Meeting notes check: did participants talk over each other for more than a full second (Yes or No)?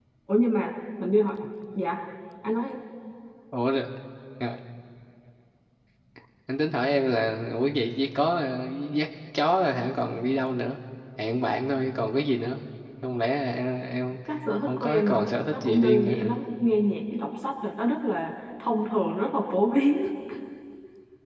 Yes